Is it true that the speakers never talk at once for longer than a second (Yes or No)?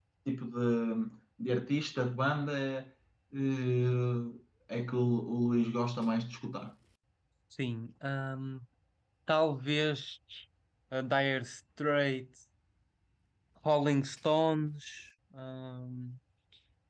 Yes